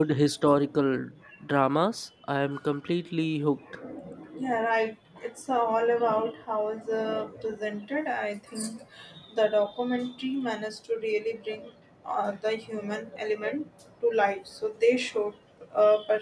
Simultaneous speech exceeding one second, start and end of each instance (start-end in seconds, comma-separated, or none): none